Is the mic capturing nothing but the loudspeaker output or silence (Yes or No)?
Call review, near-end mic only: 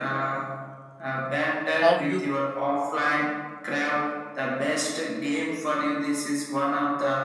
No